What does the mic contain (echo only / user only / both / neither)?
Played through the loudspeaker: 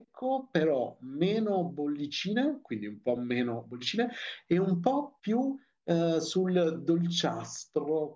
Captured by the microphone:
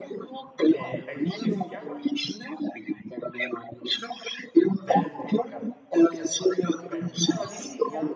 both